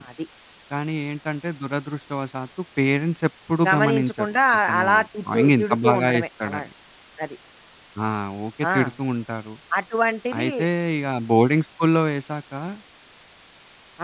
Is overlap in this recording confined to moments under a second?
No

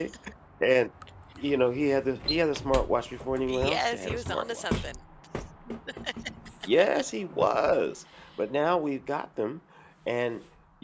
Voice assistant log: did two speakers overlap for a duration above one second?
Yes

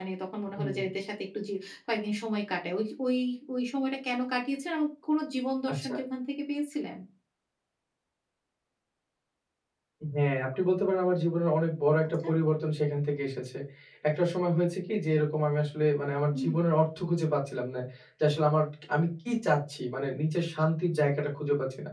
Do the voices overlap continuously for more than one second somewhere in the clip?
No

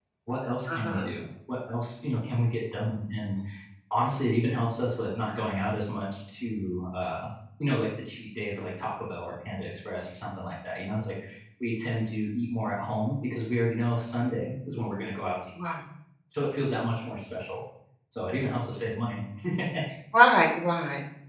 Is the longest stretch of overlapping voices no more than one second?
Yes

